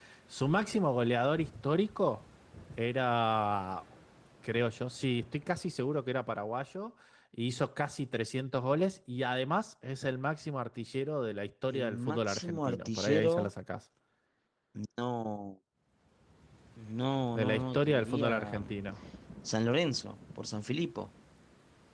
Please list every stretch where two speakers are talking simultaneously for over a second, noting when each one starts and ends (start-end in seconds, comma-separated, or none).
11.7-13.5, 17.4-18.8